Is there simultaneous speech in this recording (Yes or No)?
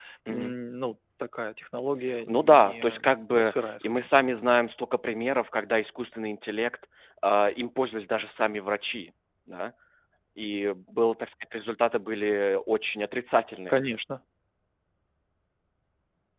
Yes